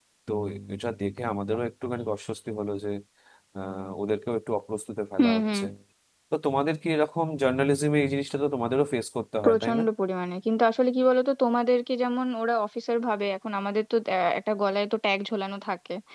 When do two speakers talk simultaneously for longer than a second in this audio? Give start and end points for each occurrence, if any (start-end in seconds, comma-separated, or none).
none